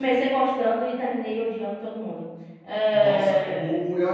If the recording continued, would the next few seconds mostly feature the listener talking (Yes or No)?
Yes